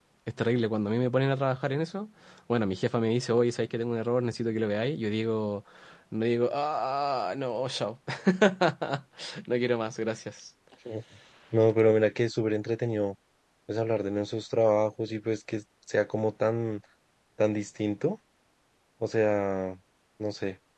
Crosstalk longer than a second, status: none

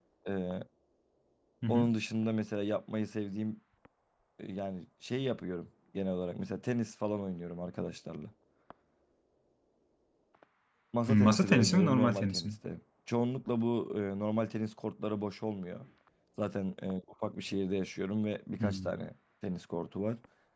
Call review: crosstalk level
present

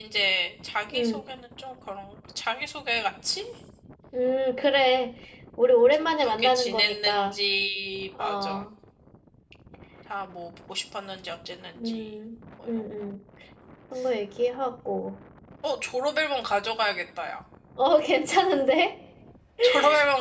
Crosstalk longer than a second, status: present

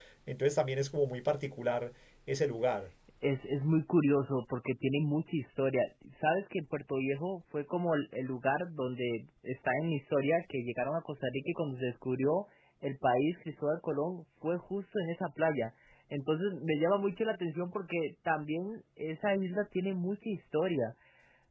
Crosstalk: none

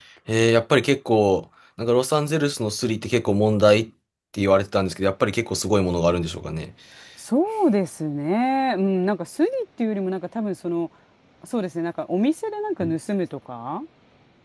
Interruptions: none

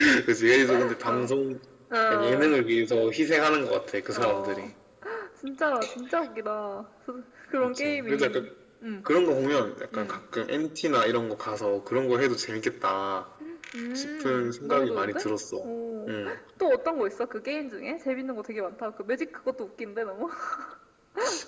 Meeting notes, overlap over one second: present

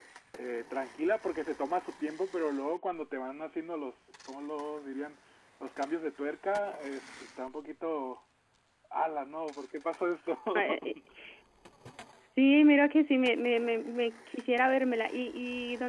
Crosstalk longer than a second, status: none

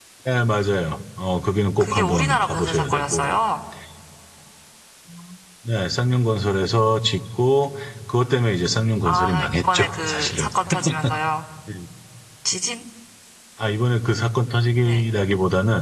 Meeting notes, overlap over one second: present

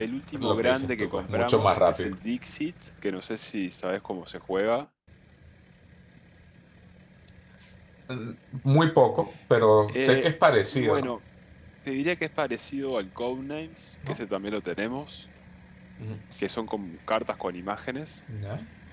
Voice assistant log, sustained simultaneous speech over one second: present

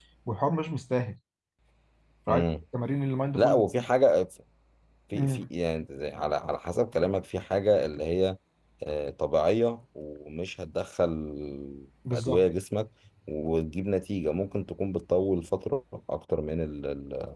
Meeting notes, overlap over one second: none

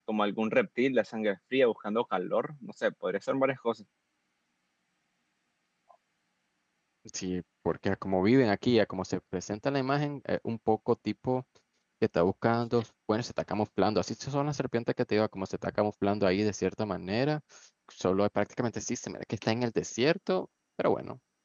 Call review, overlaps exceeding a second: none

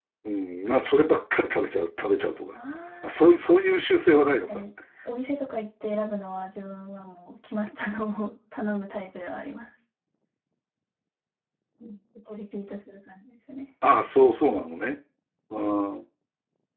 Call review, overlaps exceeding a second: none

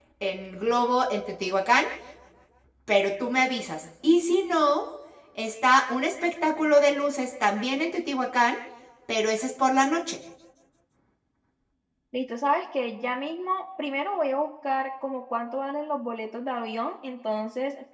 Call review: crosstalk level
none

